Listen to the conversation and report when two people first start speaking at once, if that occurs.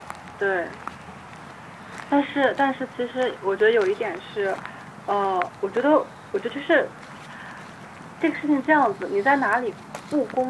none

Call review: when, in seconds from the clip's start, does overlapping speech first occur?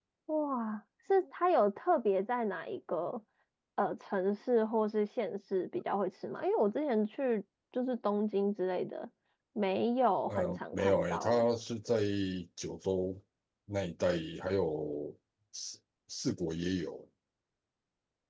10.3 s

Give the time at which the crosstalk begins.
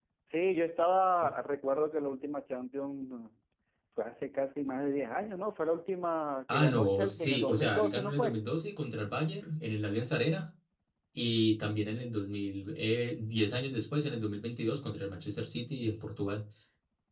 6.5 s

